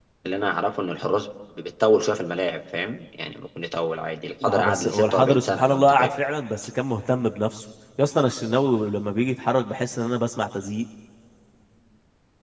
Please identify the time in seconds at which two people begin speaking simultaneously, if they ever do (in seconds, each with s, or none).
4.4 s